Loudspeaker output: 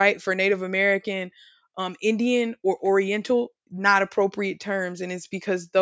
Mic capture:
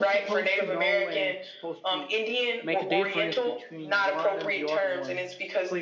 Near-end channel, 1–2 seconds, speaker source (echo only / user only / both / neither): both